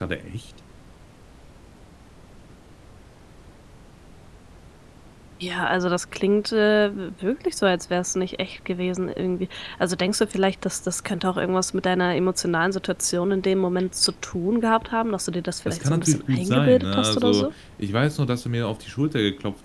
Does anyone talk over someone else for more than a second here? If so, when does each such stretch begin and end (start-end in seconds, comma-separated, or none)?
15.7-17.5